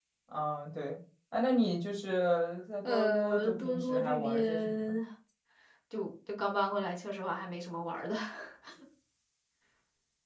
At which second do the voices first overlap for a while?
2.8 s

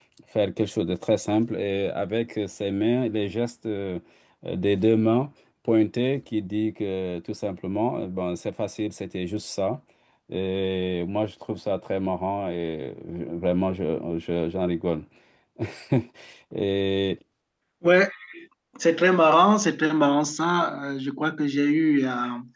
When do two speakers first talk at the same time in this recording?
none

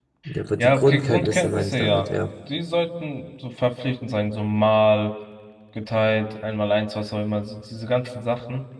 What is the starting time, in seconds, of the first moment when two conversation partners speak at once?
0.6 s

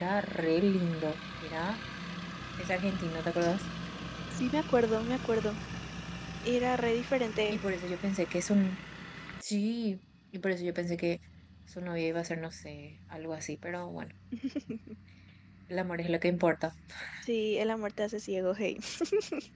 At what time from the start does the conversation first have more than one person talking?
none

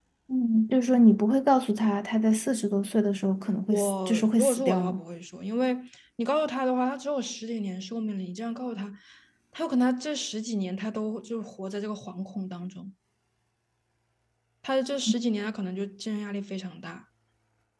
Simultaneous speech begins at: 3.7 s

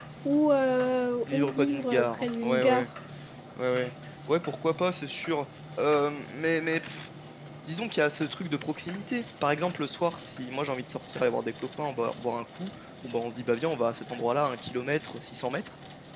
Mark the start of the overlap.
1.3 s

